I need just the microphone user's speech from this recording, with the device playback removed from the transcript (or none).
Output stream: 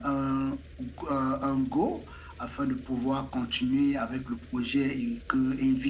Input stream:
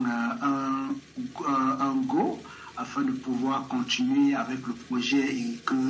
none